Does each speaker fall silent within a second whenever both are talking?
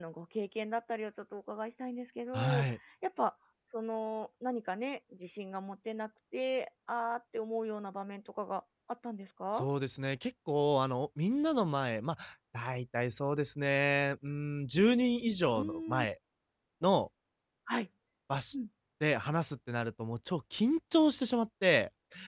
Yes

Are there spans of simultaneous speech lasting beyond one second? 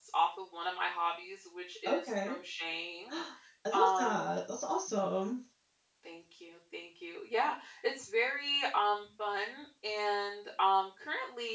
No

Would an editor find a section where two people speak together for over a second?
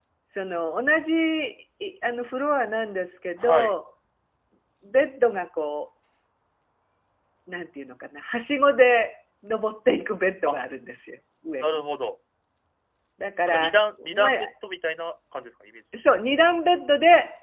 No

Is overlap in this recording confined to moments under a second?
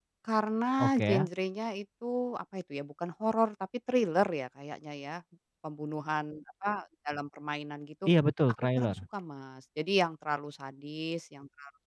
Yes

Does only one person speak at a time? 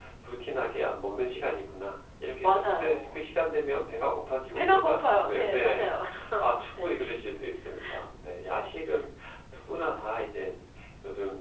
No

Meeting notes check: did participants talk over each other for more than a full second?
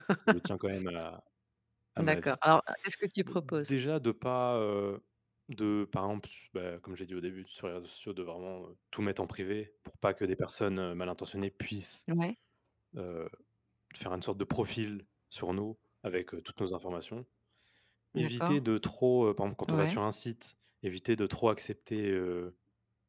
No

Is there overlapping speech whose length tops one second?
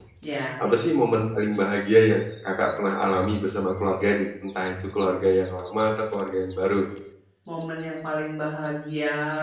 No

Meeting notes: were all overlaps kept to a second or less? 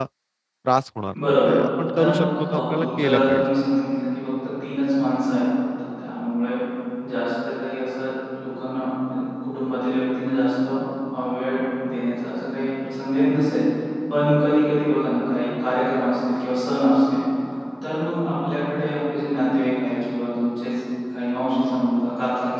No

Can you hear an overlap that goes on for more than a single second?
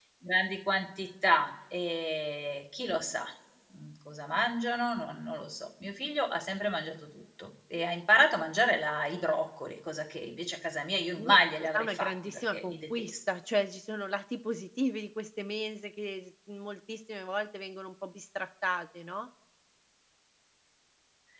Yes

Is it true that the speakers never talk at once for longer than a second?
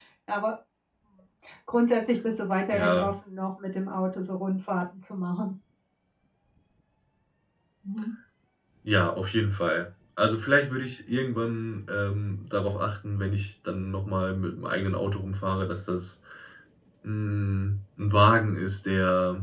Yes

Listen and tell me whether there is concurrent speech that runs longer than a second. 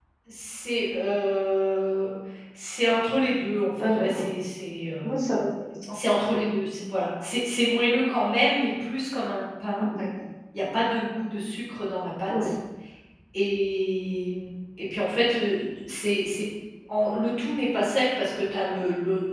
No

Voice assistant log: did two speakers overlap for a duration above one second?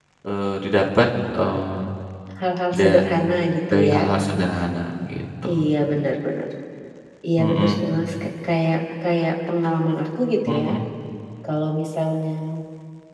No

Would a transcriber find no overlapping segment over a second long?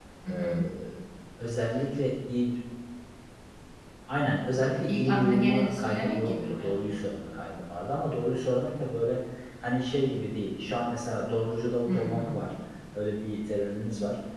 No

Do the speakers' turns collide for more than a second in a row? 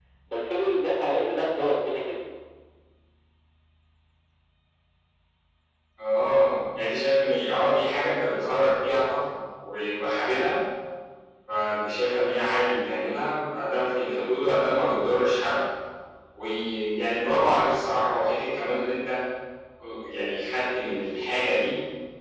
No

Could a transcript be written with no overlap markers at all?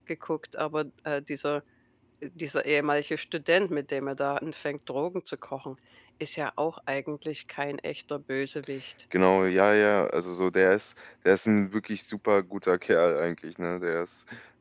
Yes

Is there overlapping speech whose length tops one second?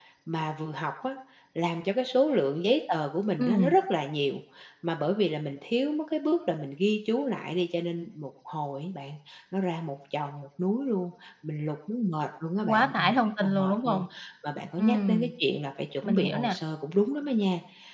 Yes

